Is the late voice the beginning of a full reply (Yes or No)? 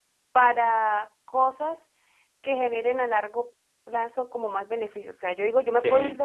No